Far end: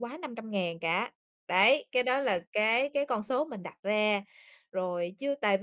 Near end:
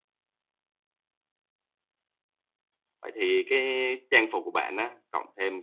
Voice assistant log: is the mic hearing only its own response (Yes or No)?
No